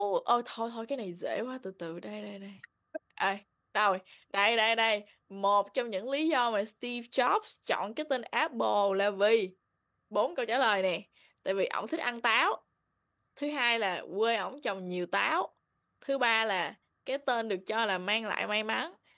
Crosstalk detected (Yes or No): No